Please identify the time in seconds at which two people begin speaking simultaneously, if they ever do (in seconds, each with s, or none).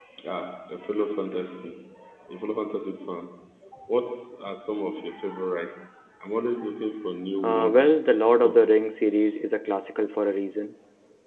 7.4 s